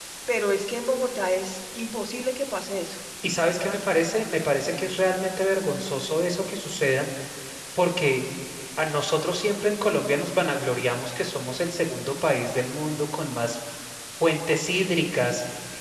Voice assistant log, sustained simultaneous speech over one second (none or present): none